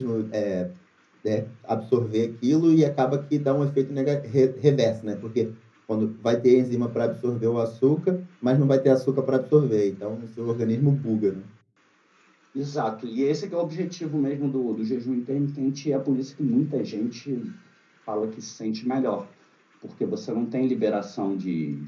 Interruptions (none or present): none